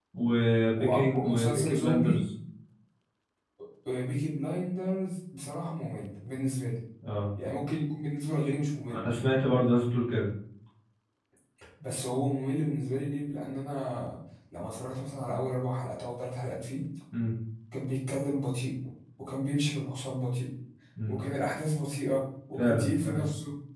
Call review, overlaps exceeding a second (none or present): present